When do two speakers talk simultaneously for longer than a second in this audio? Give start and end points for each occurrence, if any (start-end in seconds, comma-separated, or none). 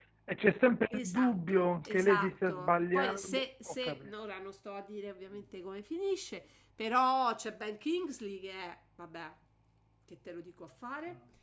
0.9-4.1